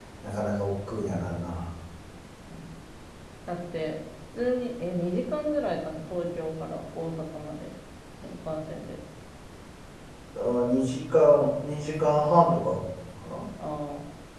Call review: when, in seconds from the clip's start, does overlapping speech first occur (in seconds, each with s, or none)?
none